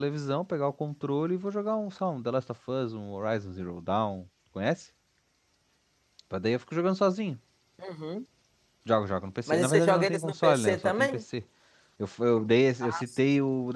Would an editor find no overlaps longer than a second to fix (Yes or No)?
No